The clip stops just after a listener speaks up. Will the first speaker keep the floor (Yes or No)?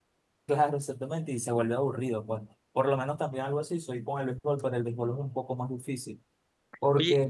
No